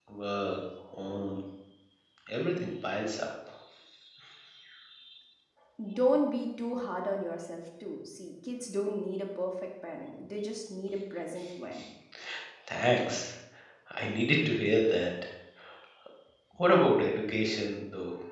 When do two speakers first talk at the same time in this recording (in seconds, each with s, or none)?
none